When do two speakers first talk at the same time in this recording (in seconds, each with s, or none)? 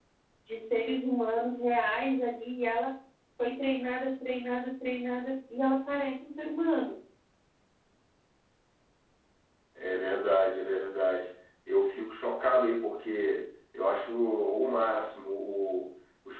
none